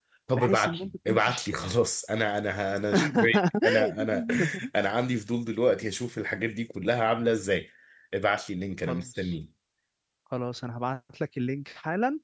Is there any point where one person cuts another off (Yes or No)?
Yes